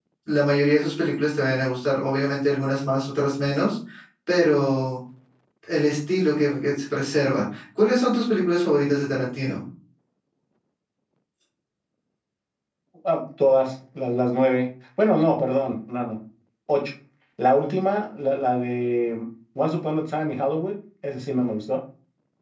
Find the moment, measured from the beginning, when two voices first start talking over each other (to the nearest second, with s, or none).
none